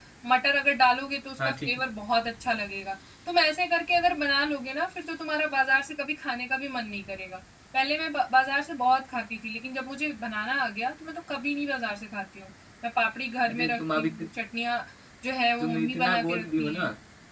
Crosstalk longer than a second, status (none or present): present